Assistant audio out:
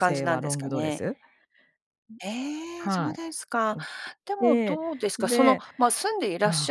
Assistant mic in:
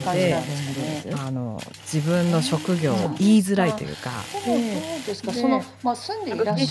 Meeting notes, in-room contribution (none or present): present